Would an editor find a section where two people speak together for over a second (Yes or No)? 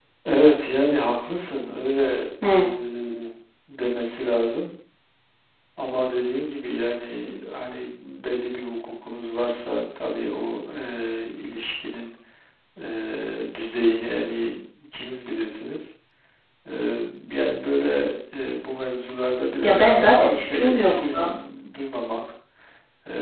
Yes